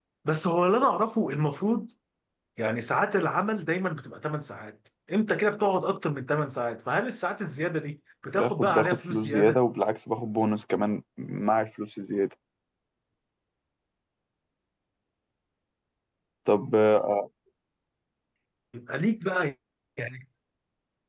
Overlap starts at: 8.3 s

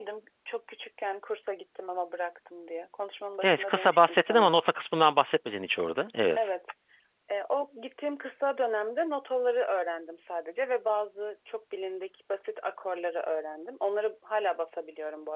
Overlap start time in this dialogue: 3.4 s

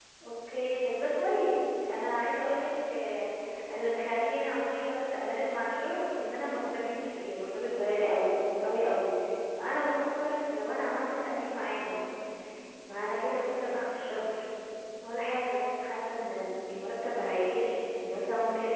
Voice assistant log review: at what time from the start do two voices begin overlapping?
none

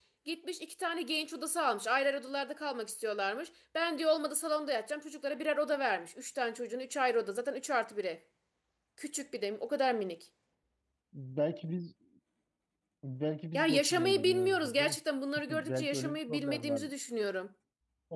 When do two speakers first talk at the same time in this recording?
13.5 s

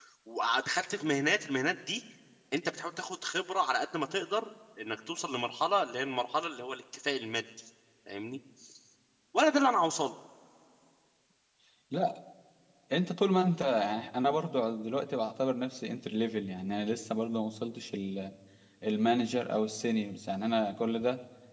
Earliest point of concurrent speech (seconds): none

